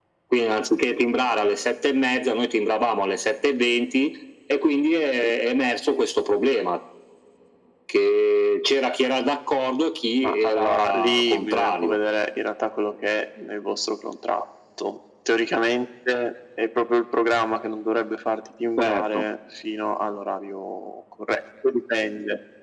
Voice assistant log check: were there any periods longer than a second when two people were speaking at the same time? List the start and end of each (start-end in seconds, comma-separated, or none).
10.2-12.0